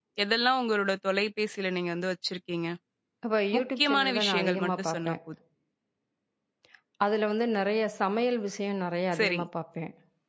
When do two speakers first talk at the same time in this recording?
4 s

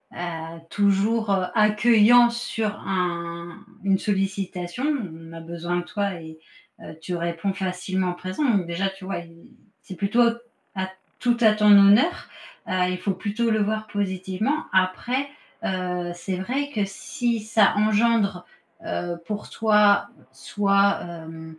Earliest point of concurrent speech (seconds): none

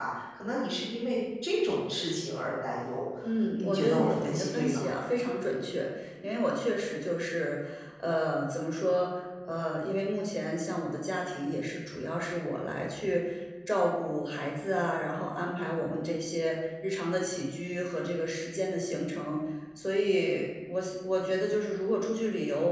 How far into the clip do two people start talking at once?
4 s

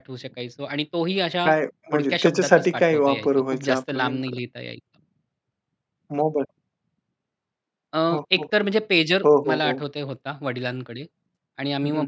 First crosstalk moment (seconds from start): 2 s

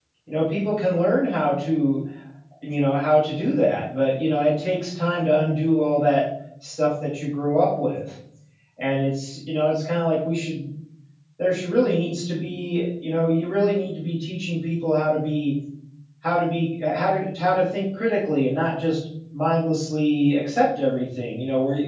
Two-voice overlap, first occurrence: none

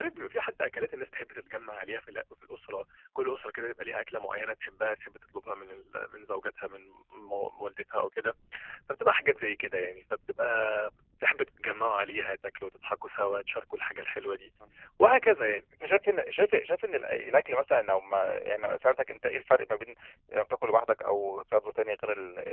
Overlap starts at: none

